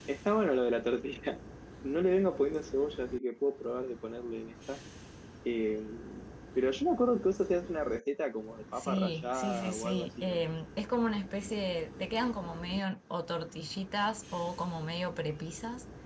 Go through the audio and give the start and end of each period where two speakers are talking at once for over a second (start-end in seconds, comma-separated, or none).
8.8-10.4